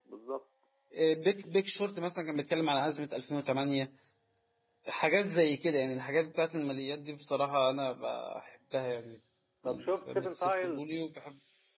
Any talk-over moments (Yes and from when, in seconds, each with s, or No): Yes, from 9.6 s